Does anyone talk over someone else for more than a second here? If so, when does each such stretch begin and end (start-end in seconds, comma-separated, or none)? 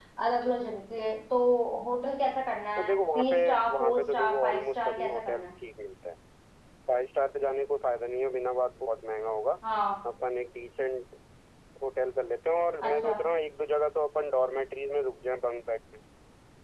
2.8-5.5